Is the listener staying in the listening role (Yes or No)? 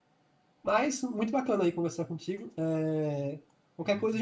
Yes